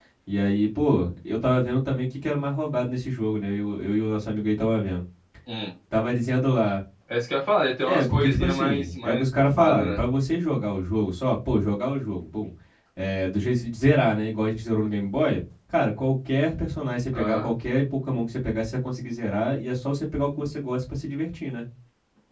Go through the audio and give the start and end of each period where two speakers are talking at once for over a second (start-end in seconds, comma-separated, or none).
7.9-10.0